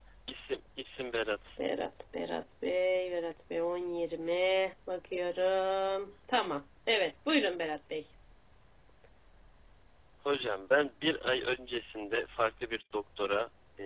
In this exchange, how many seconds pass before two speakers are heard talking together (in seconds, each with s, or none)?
none